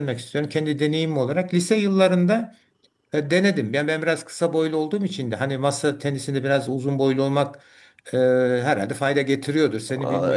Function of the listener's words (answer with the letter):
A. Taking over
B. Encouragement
A